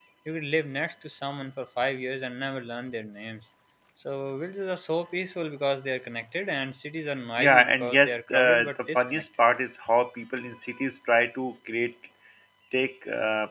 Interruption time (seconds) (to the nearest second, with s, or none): 7 s